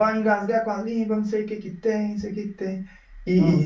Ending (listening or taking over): listening